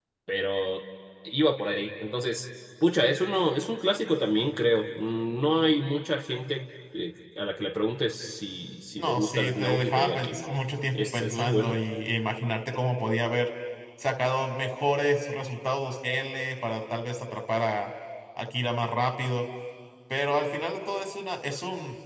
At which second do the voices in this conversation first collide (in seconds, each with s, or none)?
8.9 s